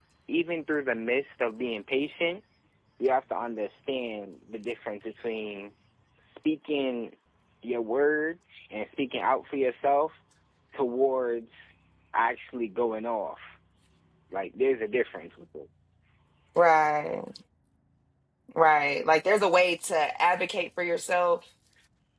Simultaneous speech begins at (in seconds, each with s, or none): none